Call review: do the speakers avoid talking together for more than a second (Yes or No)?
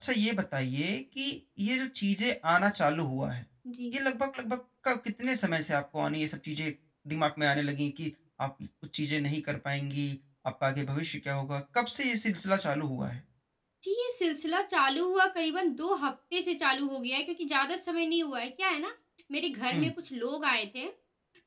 Yes